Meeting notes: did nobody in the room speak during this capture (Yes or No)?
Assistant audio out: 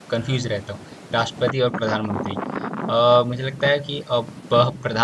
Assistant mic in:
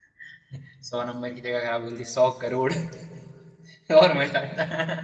No